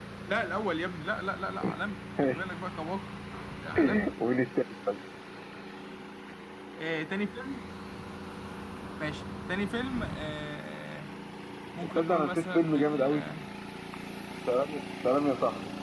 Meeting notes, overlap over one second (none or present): present